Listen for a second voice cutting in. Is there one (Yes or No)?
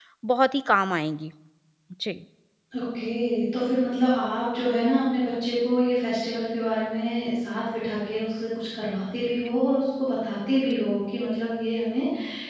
No